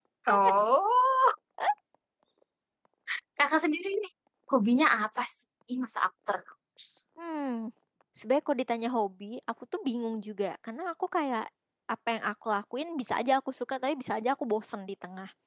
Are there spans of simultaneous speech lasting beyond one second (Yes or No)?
No